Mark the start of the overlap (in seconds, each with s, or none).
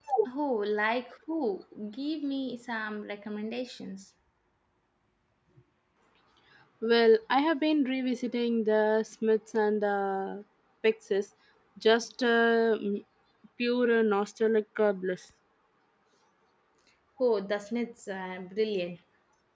none